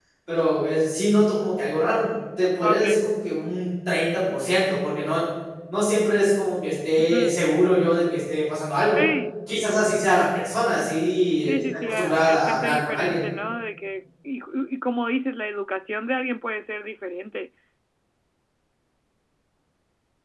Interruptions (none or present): present